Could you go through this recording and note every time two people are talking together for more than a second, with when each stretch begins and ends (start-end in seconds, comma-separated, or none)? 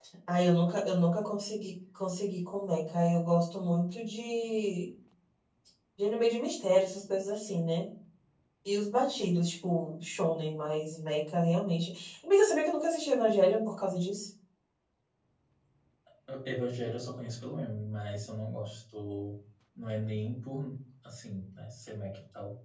none